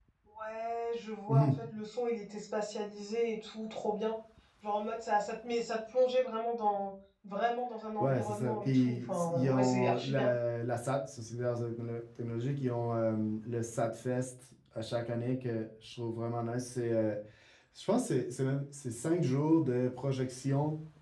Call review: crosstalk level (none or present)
present